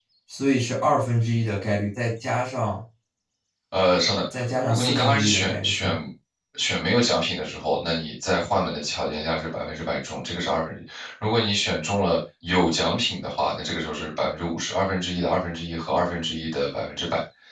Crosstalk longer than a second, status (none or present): present